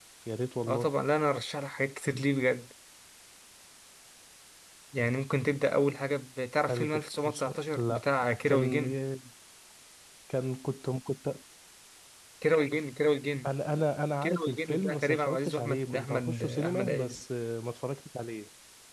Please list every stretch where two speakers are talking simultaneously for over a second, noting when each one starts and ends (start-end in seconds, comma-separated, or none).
6.7-8.8, 14.2-17.2